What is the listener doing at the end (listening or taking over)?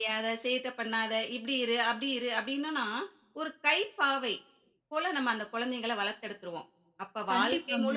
listening